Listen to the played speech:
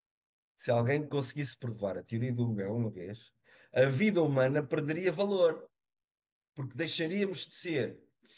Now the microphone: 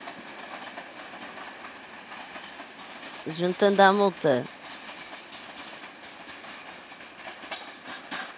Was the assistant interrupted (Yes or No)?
Yes